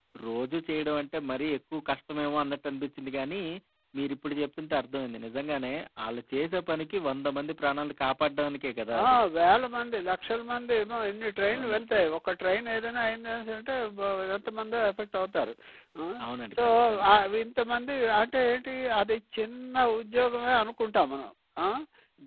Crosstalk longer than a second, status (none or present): none